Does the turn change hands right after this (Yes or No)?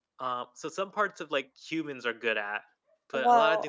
No